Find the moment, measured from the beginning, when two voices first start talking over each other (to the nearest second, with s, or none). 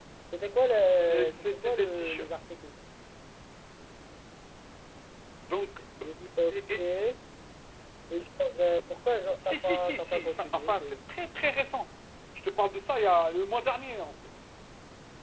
1 s